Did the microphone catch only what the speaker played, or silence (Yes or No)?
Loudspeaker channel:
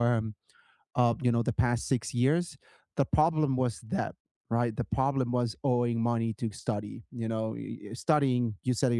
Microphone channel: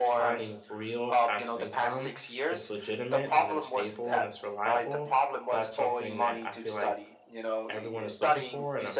No